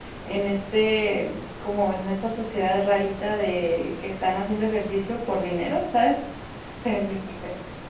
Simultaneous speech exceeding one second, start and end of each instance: none

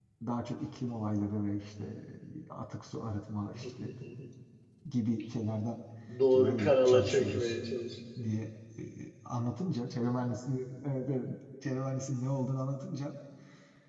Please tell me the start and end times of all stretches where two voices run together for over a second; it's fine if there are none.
6.3-7.6

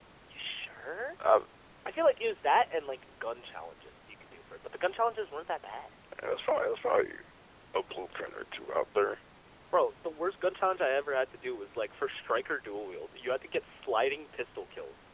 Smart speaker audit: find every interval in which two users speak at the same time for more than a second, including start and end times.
none

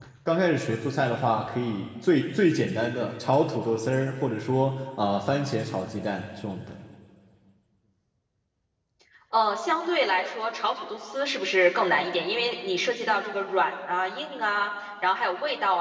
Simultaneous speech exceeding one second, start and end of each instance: none

